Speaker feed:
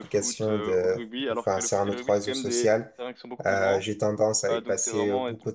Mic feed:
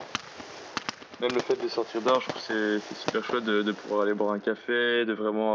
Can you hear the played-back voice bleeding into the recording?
No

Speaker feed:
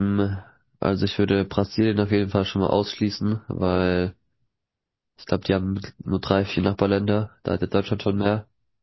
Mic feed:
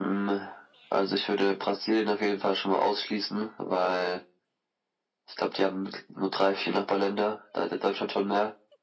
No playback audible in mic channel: No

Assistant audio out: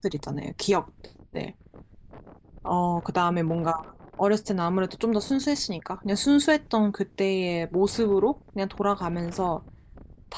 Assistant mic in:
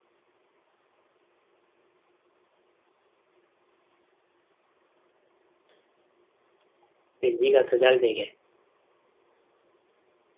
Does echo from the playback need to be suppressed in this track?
No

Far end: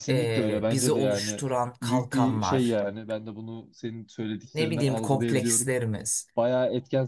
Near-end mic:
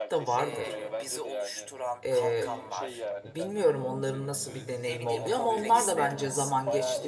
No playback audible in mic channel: No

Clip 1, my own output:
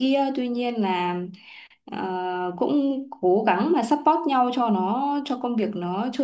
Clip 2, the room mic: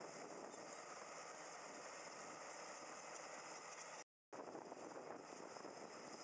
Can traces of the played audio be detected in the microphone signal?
No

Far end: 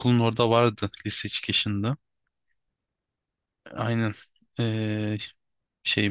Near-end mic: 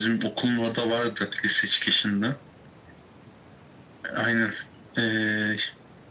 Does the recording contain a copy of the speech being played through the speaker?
Yes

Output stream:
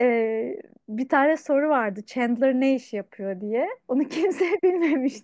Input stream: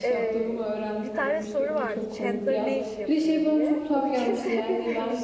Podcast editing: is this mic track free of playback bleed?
No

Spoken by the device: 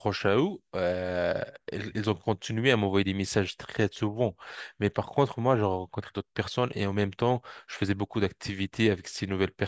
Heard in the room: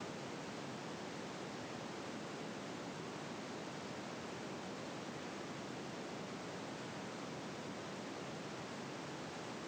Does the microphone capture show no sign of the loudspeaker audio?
Yes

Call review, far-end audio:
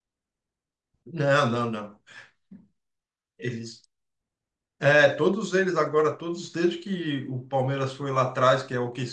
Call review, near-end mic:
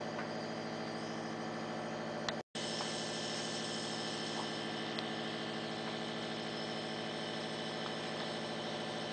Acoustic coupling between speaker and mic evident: No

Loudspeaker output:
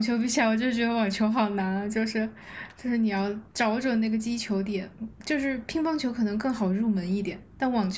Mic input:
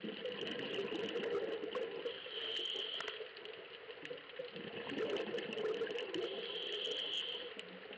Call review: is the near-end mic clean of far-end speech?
Yes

